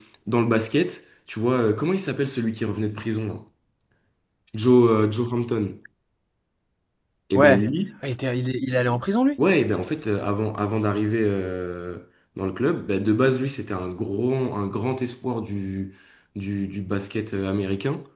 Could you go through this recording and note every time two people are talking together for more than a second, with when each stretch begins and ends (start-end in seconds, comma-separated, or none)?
none